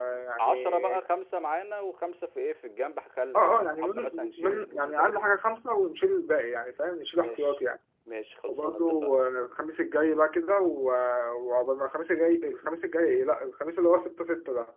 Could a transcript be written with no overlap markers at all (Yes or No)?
No